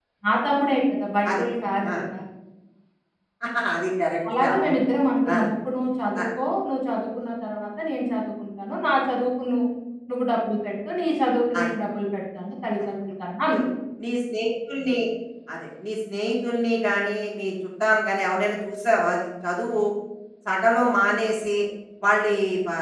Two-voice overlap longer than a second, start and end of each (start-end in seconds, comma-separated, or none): none